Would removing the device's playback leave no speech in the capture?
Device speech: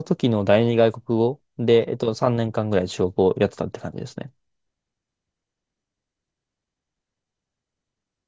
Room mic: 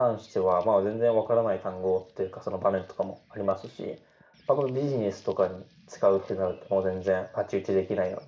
No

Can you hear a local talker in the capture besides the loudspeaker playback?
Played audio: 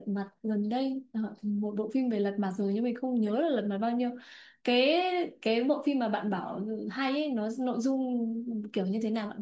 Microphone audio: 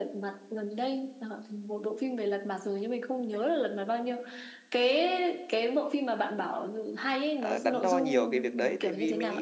Yes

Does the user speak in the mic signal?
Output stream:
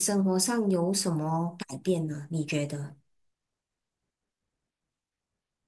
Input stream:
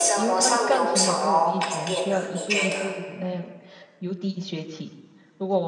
Yes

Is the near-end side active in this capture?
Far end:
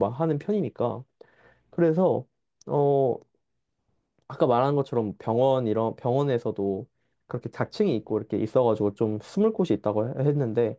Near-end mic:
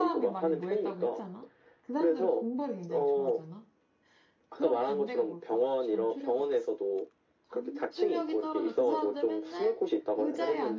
Yes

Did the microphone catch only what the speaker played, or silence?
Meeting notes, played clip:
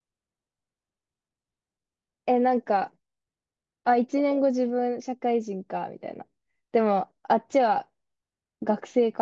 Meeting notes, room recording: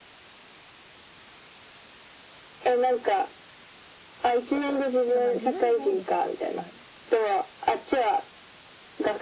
No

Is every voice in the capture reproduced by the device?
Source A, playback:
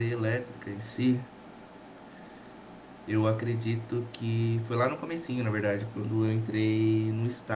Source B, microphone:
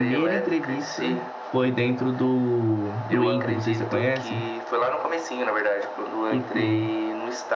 No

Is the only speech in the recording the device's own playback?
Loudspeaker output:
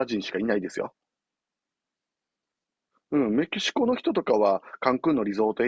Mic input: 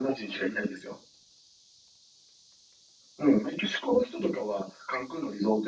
Yes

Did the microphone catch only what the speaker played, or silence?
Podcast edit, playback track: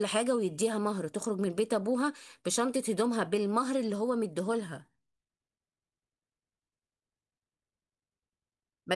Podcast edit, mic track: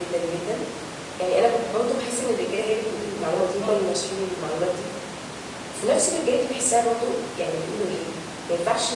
No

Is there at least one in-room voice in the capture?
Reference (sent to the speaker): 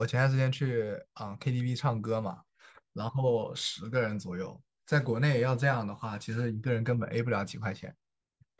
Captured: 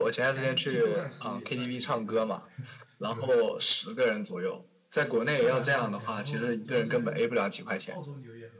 Yes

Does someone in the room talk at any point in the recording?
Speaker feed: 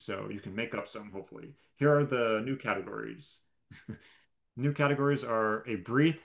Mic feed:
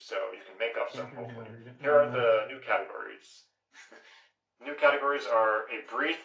Yes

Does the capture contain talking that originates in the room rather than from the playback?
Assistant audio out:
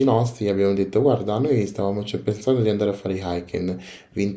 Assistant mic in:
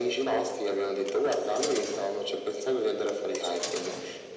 No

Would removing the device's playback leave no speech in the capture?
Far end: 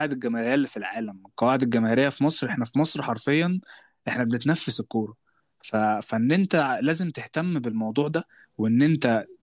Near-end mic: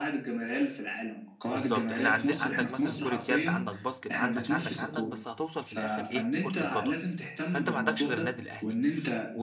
No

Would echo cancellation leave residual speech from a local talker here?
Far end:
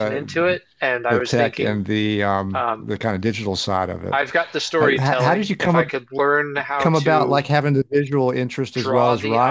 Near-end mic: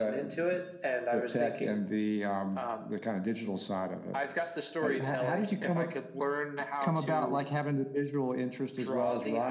No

